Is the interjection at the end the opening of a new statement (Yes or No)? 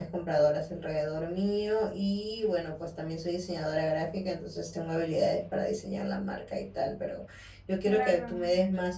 No